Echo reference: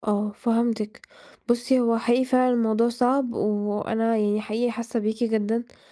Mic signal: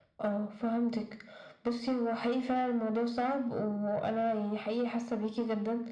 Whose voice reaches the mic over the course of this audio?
echo only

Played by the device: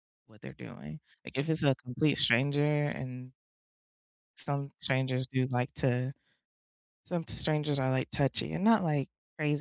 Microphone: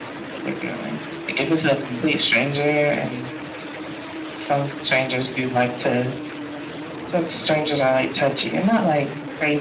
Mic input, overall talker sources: echo only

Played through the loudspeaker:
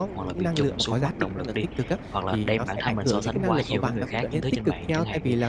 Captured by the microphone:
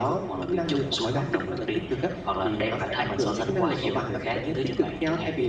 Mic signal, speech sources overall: echo only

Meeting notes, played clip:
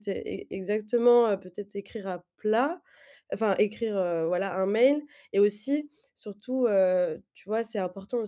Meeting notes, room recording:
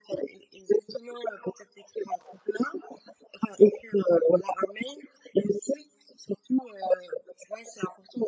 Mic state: echo only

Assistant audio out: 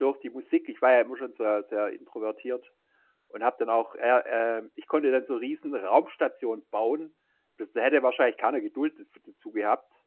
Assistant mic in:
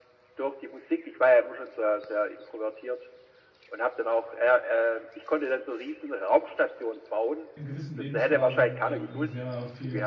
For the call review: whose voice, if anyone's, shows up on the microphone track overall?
both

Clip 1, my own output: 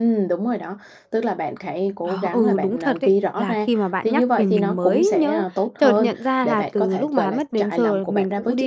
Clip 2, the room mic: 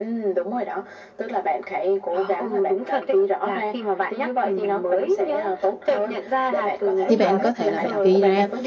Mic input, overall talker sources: both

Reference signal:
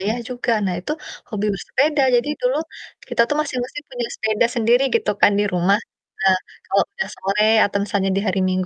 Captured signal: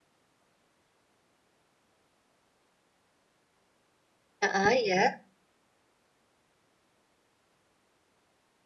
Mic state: user only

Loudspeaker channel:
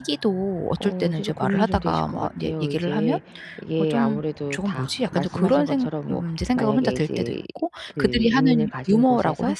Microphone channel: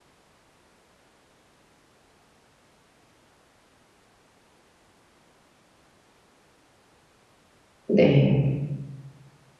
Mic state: user only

